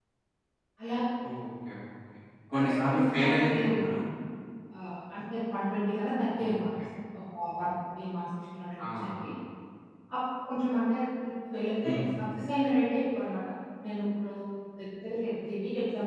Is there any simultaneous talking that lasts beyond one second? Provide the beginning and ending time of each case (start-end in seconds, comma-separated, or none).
2.5-3.9